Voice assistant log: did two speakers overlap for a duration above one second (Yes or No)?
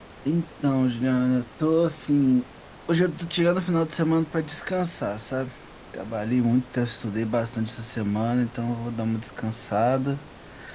No